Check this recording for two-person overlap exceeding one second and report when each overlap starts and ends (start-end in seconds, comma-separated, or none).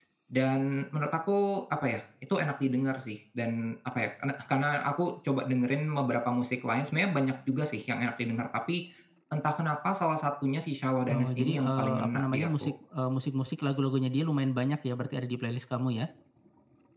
11.1-12.7